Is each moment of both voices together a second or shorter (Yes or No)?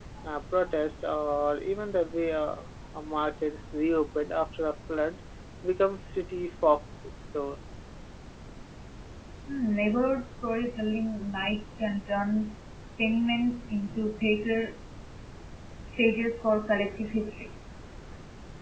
Yes